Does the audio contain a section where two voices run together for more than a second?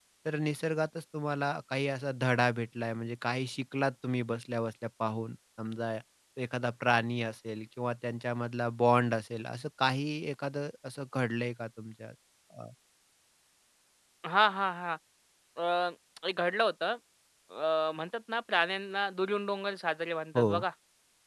No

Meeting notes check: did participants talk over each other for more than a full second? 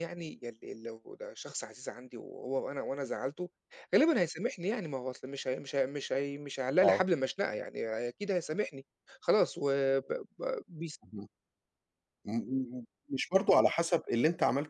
No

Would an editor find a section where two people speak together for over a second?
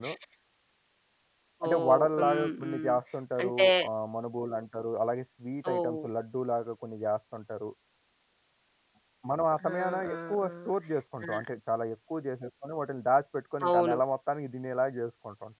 Yes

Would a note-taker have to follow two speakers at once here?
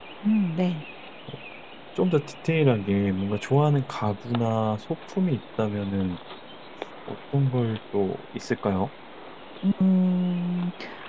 No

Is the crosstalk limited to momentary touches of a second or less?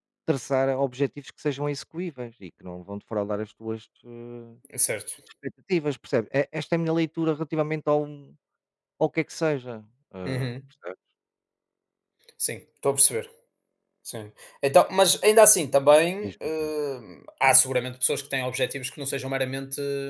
Yes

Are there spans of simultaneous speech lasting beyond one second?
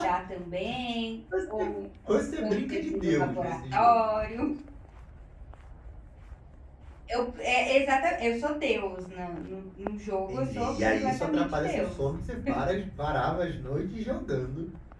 Yes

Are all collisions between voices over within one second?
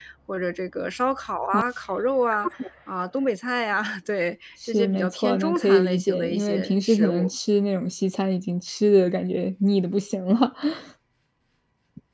No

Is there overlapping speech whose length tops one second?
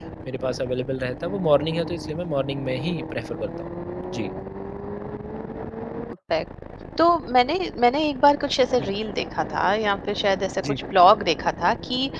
No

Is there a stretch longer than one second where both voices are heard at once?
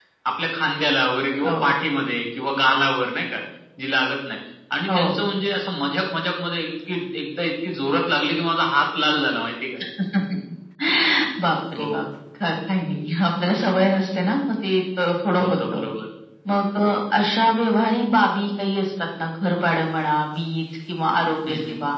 No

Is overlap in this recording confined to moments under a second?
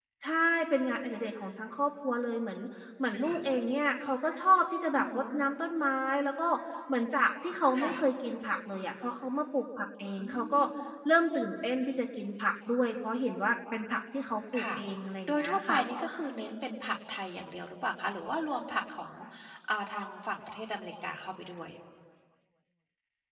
Yes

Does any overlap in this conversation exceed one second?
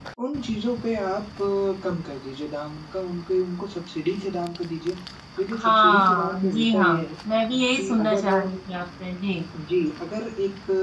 Yes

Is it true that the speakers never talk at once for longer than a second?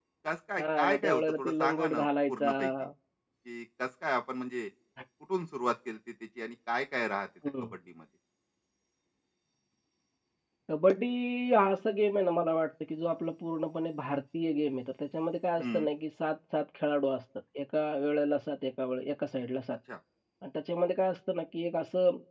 No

